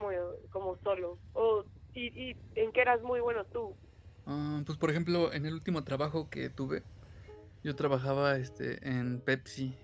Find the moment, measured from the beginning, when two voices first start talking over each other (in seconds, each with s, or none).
none